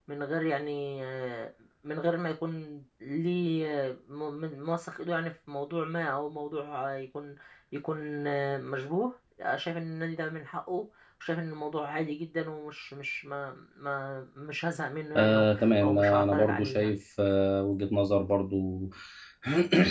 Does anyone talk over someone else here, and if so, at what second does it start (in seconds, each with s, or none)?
15.2 s